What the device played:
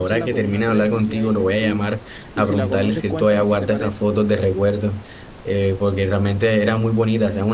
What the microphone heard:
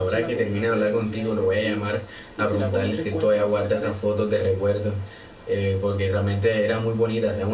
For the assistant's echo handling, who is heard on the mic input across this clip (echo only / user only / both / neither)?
echo only